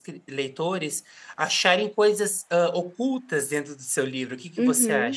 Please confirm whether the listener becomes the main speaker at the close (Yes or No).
Yes